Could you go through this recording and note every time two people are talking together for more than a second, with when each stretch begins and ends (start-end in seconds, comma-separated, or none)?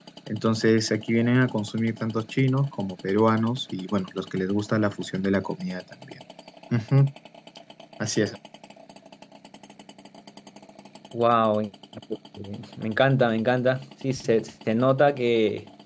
none